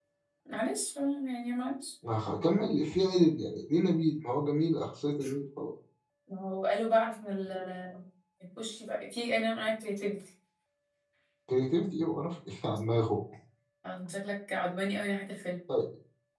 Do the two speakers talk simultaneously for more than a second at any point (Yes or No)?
No